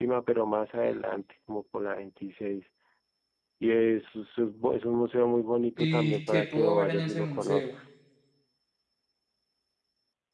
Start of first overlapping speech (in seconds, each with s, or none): 5.8 s